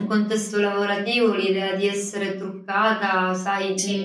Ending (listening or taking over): listening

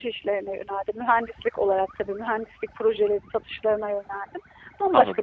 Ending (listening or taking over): taking over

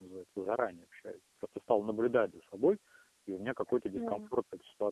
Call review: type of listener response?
listening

